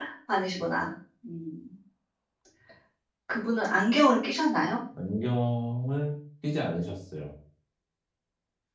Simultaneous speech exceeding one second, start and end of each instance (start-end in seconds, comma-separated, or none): none